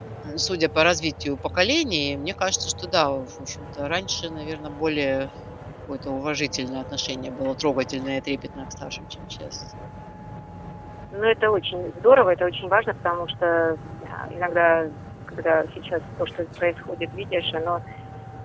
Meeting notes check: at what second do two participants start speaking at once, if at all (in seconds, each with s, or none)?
none